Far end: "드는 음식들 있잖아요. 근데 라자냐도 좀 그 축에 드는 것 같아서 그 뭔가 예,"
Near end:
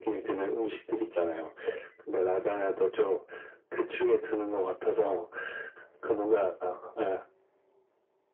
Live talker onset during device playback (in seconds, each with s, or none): none